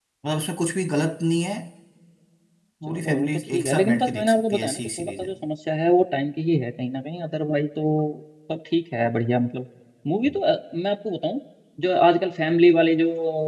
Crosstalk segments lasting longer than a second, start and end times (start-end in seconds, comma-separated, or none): 2.9-5.3